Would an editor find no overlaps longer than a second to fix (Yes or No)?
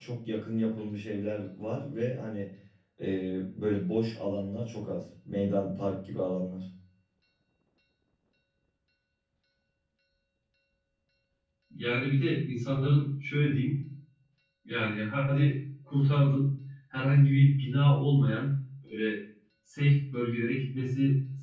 Yes